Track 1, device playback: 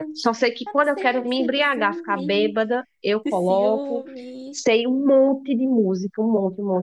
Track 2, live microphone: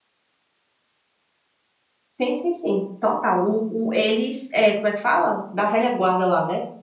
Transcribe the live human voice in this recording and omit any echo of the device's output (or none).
Sim, sim, sim, total. o, o eles, é, como é que fala? Da velha guarda lá, né?